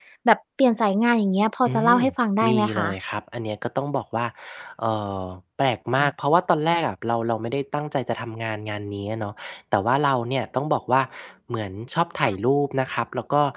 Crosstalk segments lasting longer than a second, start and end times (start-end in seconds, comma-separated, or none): none